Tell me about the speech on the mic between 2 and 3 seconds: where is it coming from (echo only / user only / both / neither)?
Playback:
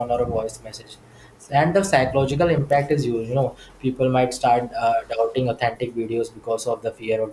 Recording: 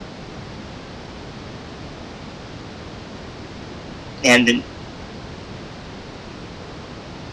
neither